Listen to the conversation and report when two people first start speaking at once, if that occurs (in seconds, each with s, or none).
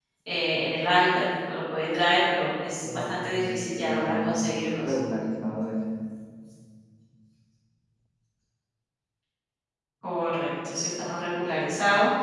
2.8 s